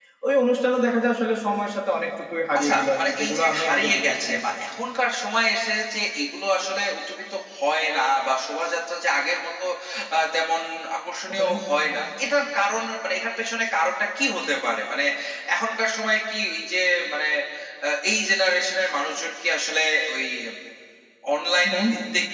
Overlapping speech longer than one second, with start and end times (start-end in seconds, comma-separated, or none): 2.6-4.4